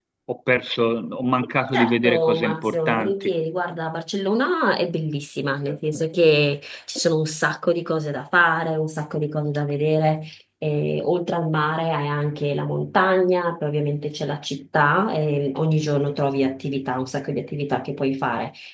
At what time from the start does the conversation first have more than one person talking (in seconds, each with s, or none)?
1.8 s